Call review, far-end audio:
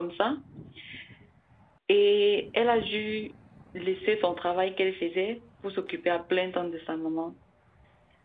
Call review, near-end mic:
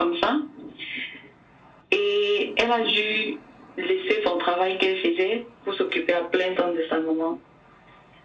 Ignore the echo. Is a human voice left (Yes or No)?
No